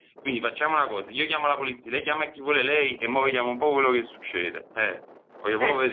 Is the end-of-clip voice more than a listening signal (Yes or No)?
Yes